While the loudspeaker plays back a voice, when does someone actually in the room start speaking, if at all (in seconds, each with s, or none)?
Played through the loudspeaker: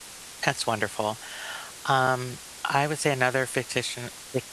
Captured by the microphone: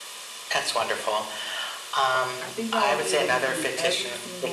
2.4 s